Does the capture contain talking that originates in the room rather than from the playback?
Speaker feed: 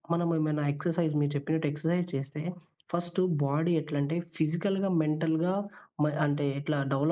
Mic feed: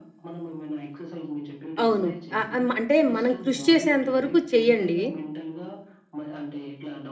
Yes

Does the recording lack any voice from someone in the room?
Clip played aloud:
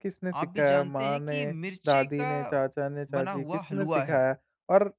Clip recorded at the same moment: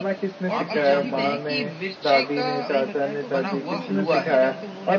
No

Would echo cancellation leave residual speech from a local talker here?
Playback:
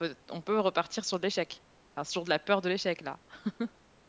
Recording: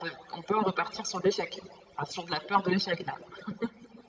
No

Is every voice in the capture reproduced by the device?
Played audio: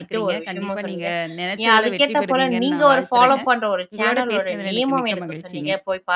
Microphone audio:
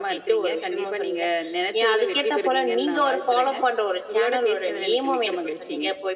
Yes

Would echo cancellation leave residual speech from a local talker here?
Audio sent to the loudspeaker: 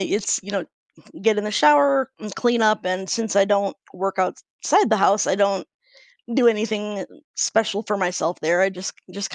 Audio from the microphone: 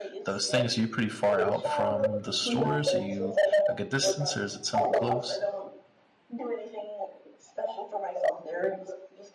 Yes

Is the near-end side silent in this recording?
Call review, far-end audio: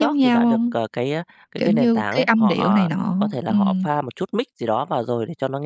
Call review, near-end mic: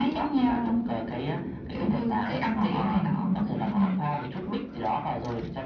Yes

